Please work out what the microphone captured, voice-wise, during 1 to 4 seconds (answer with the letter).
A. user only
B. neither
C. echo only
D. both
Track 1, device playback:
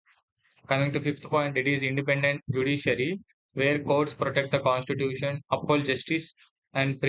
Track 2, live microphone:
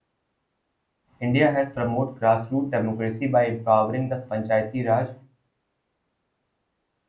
A